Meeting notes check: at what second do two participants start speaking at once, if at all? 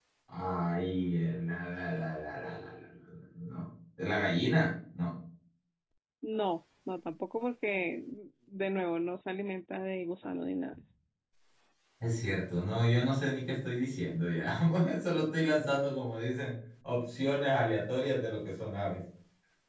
none

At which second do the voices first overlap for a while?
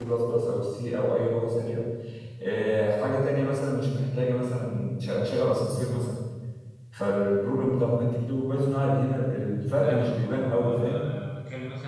9.8 s

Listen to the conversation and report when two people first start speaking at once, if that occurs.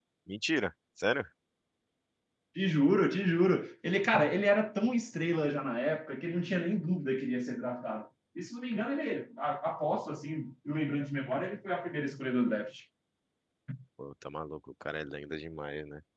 none

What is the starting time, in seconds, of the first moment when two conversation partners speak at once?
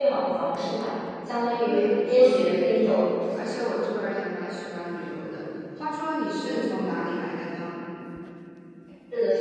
1.6 s

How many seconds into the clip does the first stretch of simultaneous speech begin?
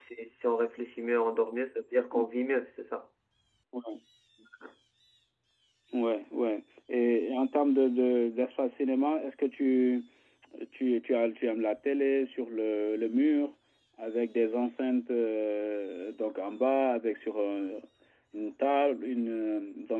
none

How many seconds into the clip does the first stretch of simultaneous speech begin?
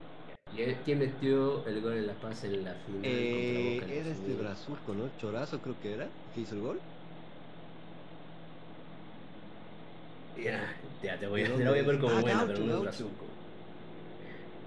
3.0 s

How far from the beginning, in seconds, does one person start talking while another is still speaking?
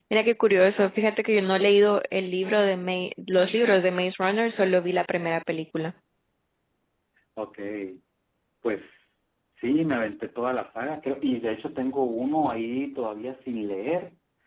none

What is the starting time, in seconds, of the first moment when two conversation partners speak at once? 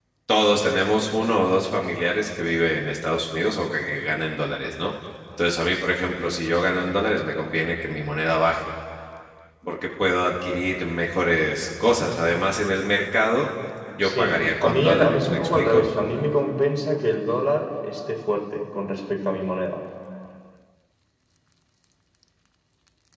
14.0 s

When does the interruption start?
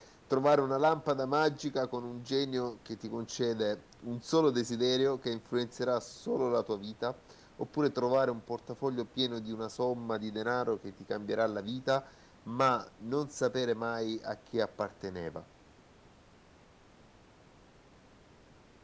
none

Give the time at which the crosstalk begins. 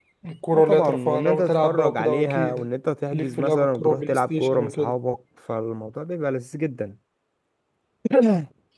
0.5 s

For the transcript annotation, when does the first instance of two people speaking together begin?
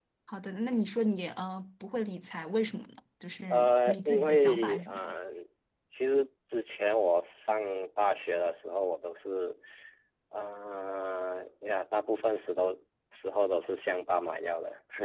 3.5 s

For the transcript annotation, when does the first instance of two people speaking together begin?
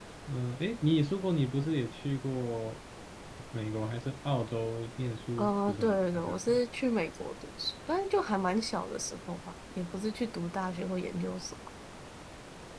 5.4 s

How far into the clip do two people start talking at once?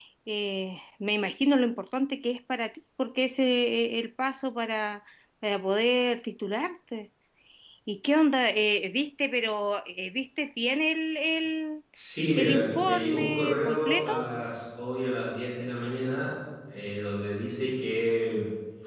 12.4 s

